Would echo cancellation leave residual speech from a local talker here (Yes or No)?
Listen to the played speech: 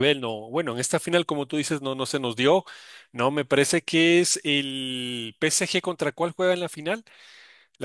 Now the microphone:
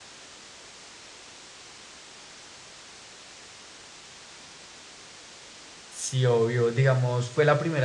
Yes